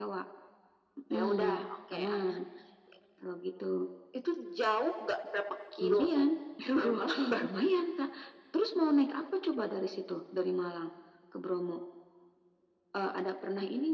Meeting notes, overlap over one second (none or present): present